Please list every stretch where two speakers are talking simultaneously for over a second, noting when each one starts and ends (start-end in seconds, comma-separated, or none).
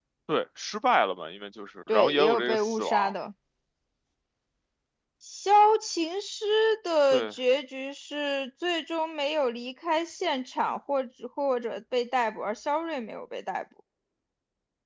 1.9-3.1